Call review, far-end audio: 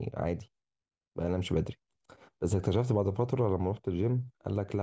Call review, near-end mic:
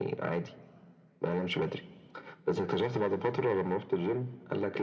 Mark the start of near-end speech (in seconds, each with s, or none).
none